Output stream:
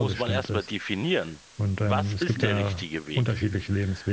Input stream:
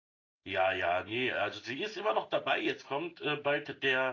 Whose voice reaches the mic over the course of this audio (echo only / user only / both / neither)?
user only